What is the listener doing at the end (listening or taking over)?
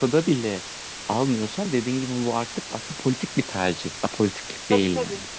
taking over